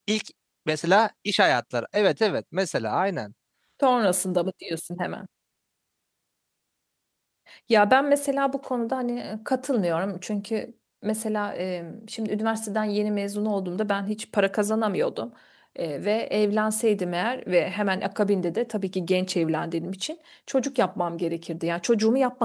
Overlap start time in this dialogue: none

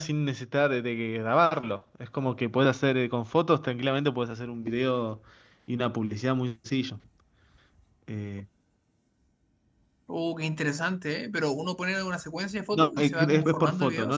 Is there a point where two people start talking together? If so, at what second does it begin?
12.7 s

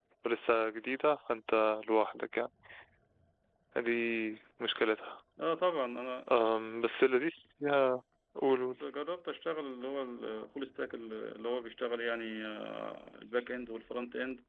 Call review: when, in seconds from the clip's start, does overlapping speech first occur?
none

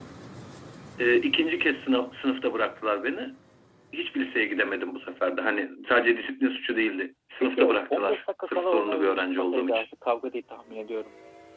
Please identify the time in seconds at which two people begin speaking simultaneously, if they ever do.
7.4 s

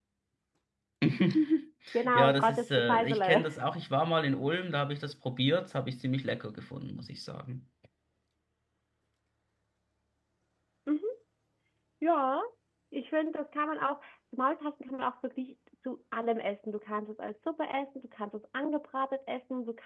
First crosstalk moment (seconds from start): 2.1 s

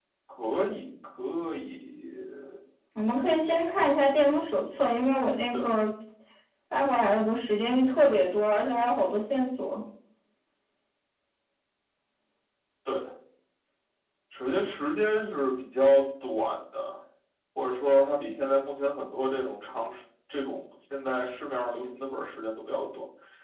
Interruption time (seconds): none

